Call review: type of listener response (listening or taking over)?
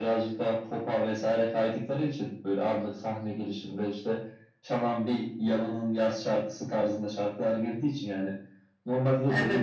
listening